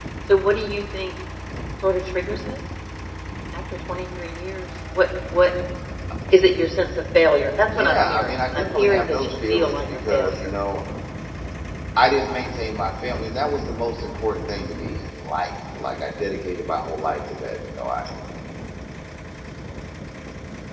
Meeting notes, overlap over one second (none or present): present